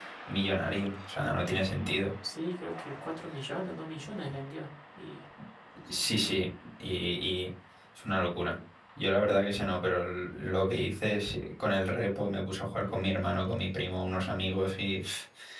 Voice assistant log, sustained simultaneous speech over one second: none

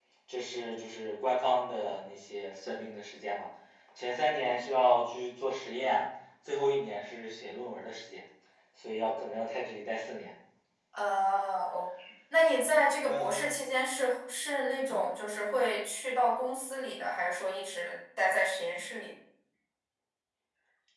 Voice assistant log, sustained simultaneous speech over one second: none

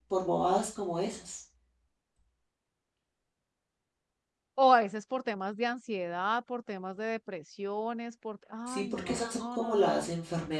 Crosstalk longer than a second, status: present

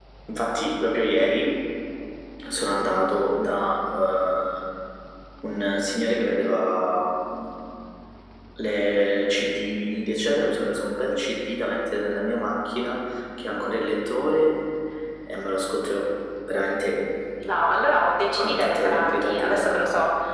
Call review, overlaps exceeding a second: present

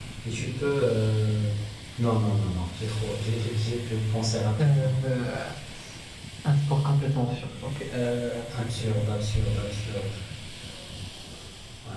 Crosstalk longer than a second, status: none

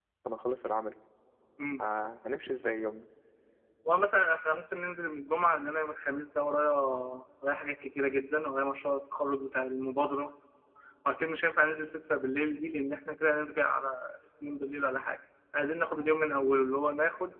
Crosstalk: none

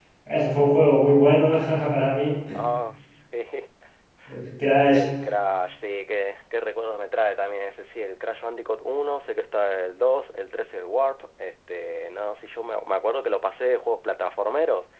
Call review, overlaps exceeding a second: none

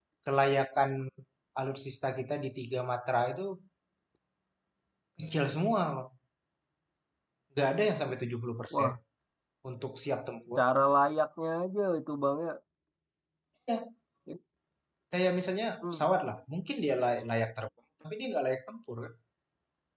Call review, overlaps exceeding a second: none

